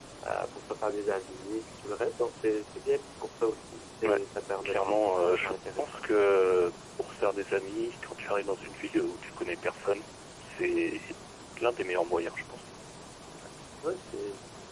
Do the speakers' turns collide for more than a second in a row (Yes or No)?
Yes